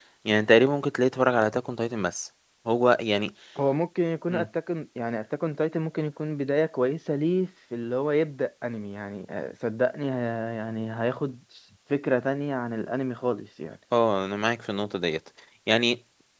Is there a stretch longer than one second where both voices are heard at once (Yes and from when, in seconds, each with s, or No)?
No